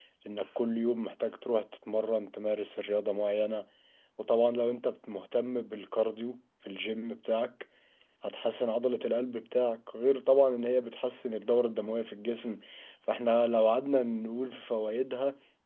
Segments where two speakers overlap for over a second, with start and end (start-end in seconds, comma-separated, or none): none